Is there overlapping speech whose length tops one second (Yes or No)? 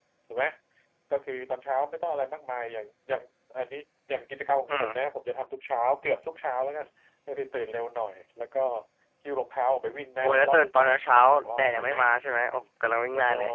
Yes